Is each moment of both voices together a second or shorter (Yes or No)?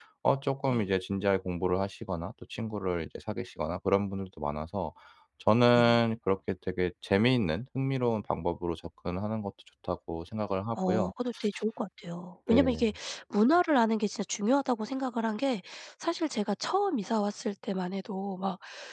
Yes